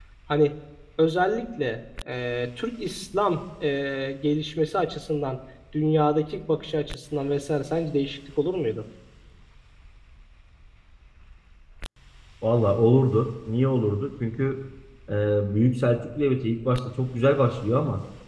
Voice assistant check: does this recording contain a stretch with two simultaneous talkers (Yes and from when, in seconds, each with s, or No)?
No